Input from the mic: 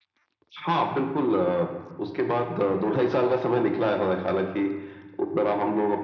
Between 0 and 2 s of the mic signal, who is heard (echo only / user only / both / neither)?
echo only